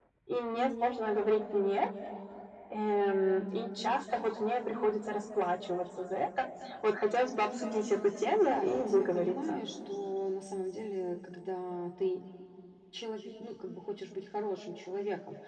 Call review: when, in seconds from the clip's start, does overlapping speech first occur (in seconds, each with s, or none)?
8.4 s